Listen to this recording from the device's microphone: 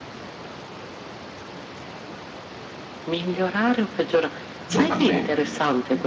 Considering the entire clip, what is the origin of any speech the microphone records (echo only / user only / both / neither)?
both